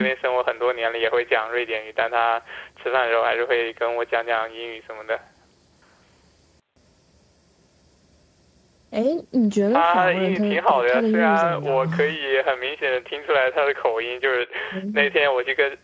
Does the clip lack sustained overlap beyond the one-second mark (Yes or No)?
No